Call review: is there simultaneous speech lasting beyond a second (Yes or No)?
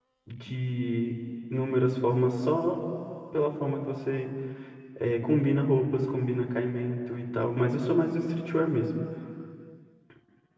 No